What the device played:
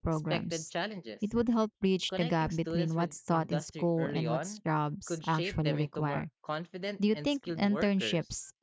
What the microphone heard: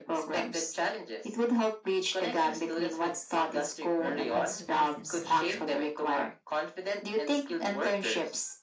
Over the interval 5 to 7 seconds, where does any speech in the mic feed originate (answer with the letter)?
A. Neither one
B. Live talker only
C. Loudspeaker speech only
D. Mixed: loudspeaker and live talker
D